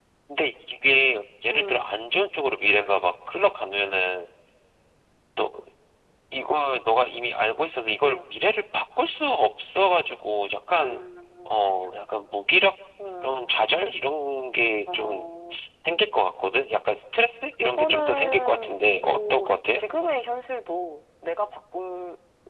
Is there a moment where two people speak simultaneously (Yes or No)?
Yes